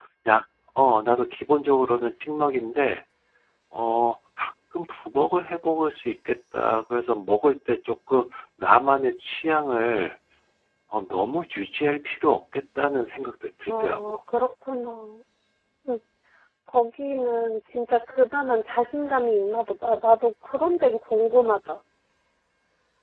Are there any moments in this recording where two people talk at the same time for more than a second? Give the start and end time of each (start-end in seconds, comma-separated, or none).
none